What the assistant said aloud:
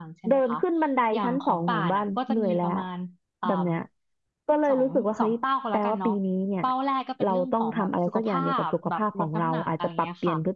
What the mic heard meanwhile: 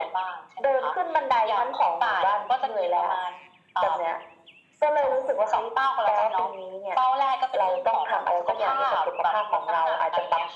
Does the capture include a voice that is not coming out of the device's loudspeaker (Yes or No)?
No